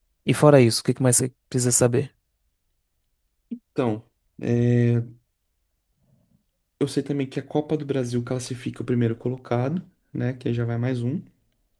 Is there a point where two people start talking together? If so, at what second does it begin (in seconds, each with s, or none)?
none